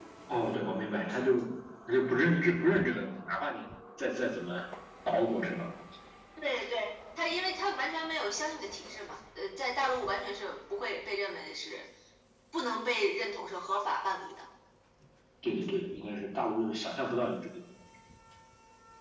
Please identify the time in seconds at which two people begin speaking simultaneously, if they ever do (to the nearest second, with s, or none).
none